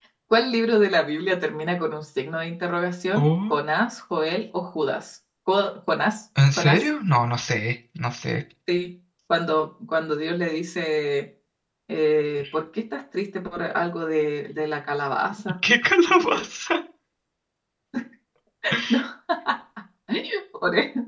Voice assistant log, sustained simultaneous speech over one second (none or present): none